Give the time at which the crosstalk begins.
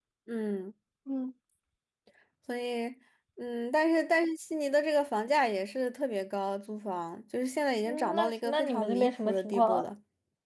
7.9 s

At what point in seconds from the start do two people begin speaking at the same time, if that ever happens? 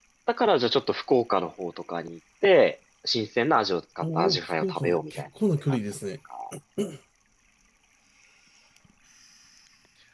4.0 s

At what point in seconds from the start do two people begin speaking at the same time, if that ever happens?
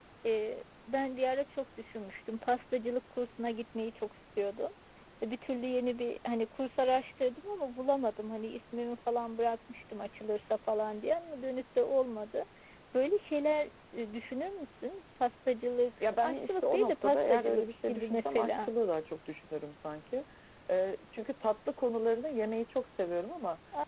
16.0 s

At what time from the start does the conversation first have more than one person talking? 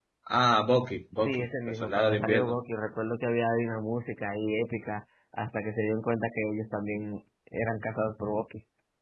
1.2 s

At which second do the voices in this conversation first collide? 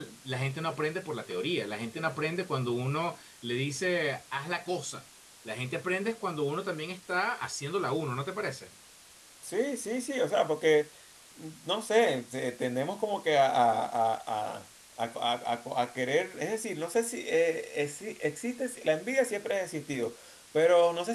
none

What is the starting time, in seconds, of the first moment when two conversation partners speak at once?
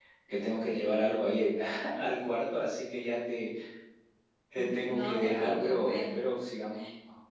4.5 s

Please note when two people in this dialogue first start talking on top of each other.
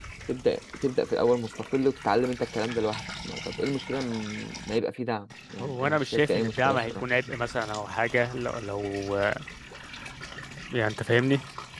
5.6 s

